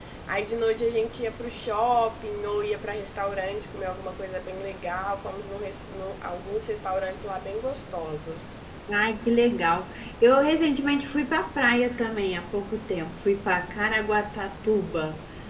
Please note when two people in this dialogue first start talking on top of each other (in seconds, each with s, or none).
none